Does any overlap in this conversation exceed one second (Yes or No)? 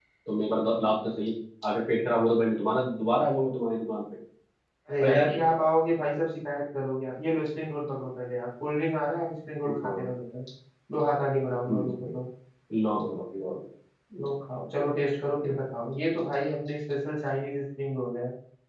No